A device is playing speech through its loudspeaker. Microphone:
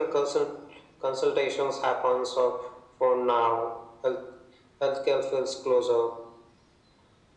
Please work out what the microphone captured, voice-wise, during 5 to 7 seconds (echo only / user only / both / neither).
echo only